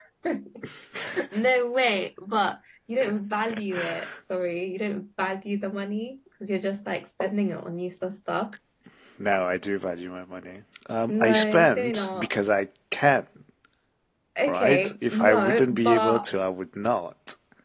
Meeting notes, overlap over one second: present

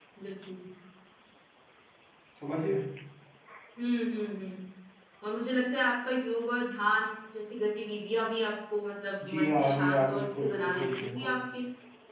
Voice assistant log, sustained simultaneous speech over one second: present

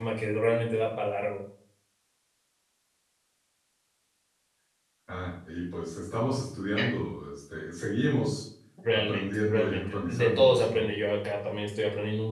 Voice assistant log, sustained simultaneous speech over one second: present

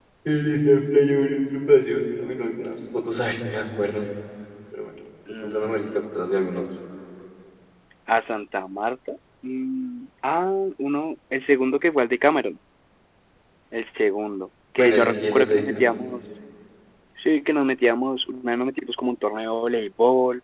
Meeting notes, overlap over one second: present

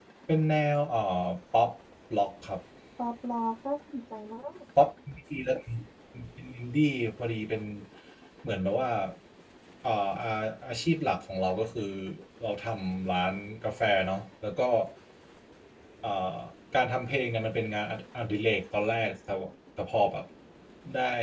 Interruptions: none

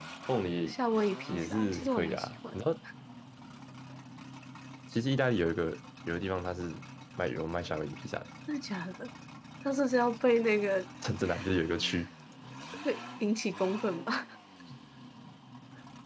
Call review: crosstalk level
present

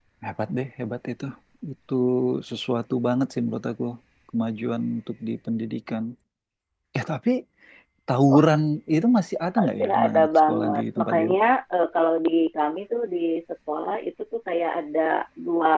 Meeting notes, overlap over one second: present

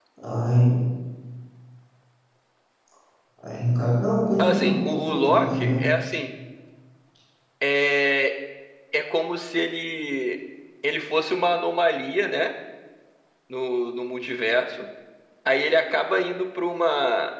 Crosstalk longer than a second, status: present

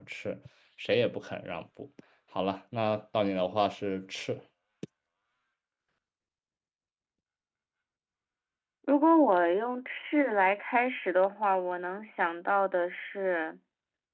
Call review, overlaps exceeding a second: none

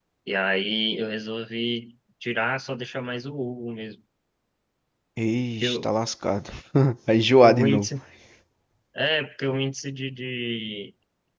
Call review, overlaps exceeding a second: none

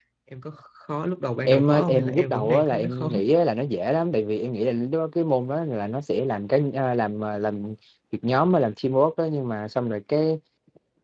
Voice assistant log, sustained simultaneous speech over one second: present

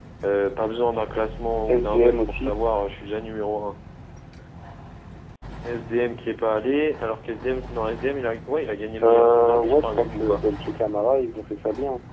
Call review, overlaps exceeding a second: present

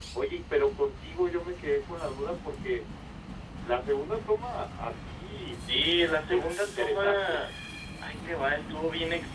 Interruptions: present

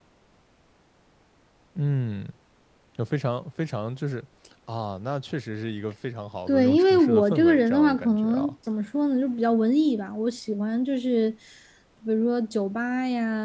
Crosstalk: present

